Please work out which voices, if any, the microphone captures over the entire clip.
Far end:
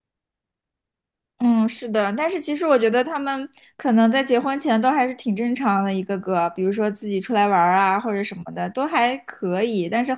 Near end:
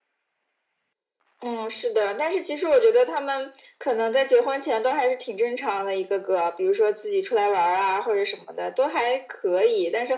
echo only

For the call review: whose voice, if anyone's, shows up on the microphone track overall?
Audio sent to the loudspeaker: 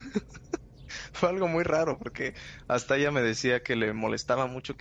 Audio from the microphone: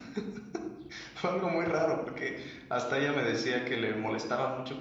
echo only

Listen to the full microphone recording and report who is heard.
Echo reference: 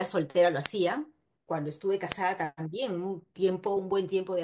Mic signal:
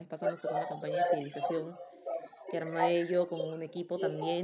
both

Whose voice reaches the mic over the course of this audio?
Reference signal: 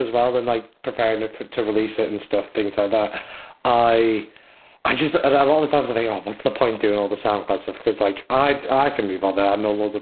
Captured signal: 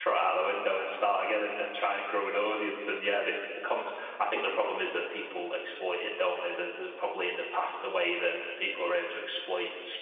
user only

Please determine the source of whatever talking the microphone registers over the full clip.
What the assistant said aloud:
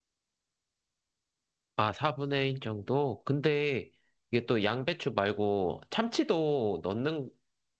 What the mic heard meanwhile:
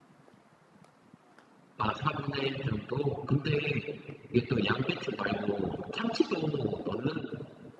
echo only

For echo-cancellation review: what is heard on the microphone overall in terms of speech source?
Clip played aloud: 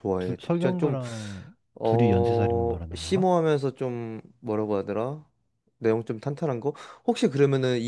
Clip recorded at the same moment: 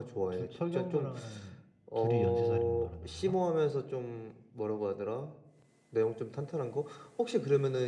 echo only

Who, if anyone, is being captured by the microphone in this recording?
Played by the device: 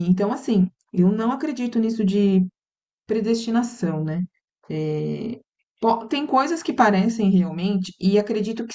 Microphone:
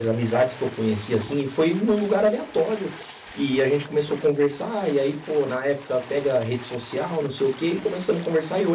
user only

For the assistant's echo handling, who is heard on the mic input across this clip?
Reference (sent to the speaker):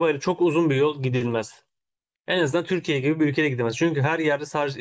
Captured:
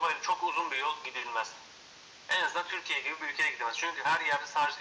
echo only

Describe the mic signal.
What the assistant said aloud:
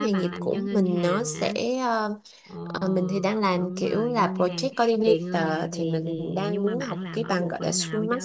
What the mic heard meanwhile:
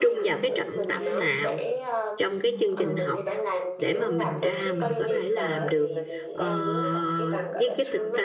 both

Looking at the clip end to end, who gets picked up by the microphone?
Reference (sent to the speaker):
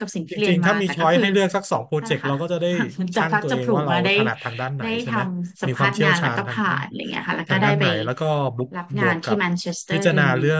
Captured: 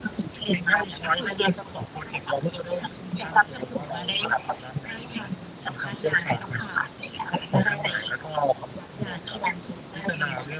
echo only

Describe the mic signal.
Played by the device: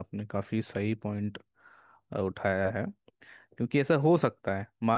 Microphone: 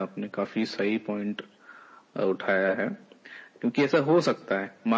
echo only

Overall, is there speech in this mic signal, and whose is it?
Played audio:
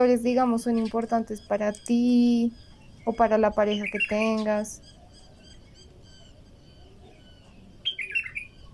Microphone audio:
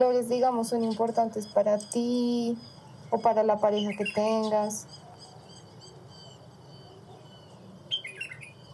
echo only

